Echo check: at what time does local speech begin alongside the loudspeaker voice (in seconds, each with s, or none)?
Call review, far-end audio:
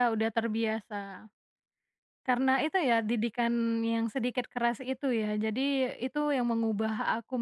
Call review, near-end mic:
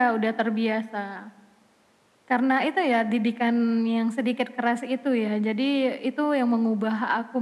none